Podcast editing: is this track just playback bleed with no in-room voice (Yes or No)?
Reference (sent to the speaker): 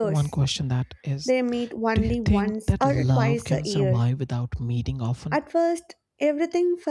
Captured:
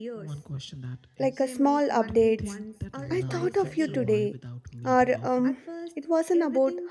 No